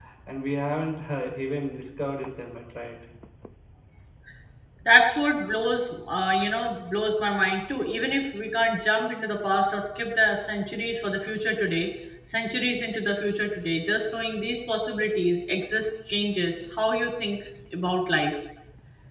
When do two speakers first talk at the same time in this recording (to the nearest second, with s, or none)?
none